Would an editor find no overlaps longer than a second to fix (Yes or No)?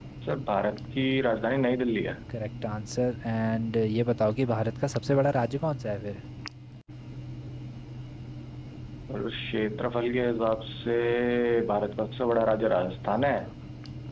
Yes